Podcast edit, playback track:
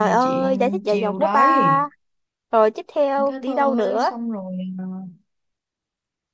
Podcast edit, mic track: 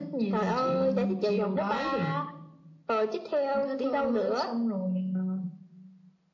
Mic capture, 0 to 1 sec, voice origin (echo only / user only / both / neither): echo only